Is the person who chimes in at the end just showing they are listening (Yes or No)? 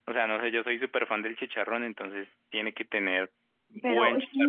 No